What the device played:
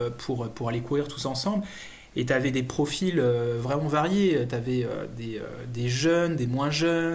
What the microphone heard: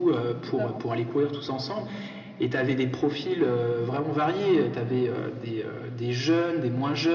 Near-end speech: present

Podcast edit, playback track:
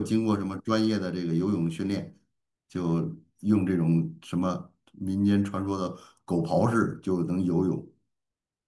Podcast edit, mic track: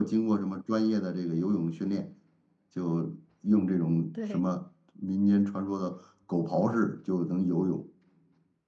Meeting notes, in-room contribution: present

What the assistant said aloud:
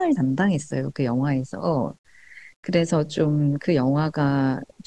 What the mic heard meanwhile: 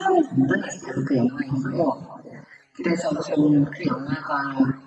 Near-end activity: none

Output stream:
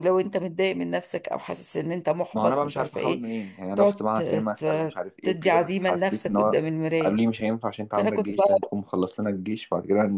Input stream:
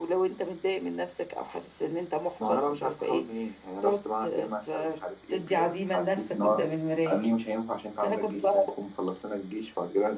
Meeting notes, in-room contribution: none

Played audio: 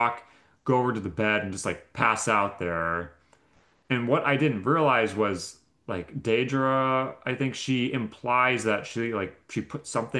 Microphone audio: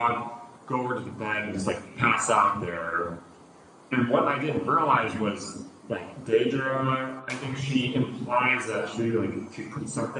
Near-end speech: none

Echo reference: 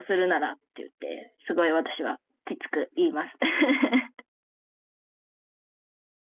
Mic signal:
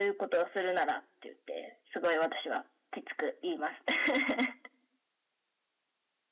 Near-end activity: none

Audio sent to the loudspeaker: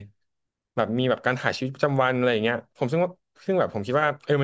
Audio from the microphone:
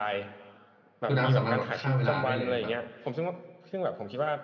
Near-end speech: present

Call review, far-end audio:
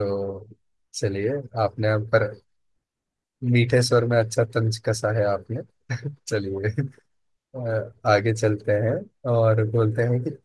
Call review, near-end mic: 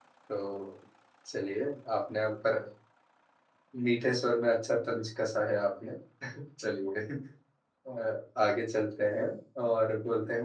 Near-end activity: none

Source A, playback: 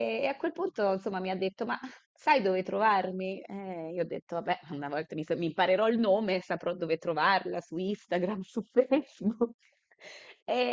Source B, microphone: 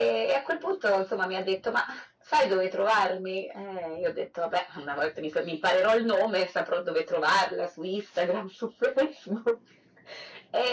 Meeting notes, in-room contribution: none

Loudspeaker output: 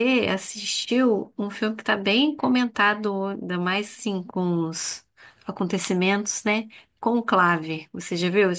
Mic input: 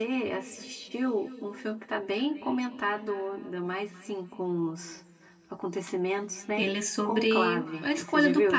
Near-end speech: present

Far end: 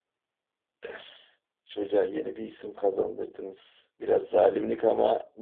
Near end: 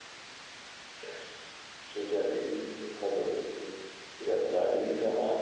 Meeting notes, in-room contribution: none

